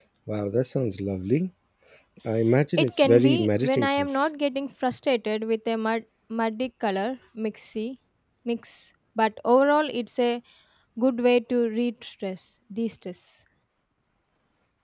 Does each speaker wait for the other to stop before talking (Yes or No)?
No